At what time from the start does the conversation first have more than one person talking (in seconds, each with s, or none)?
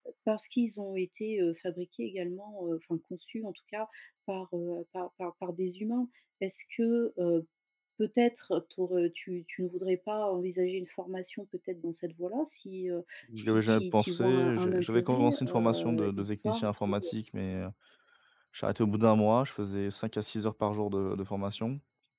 13.3 s